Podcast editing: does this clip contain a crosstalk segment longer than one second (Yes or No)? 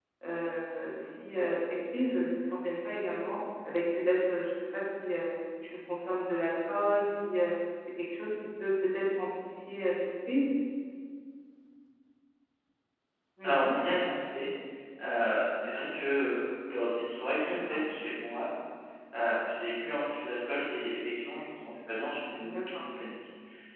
No